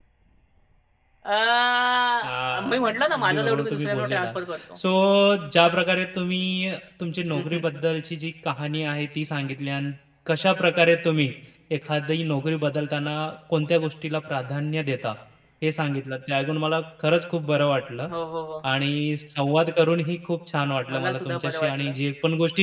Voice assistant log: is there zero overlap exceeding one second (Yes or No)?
No